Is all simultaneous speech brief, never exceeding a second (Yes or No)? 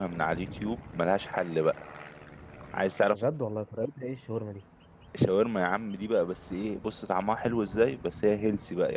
Yes